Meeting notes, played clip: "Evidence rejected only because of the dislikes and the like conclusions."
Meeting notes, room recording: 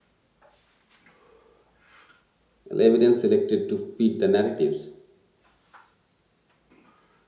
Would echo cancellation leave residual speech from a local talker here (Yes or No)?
Yes